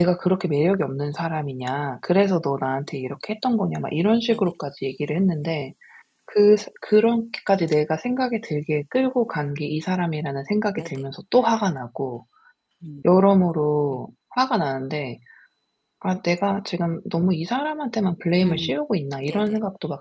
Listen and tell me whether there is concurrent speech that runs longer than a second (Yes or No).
No